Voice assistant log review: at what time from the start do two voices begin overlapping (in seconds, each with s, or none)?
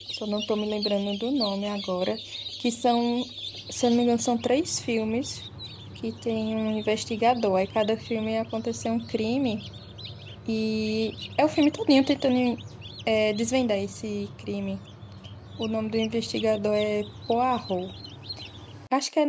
none